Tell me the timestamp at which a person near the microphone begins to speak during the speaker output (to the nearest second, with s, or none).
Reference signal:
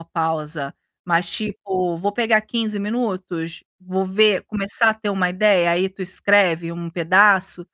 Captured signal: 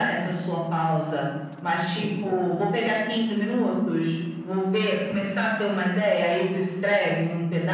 none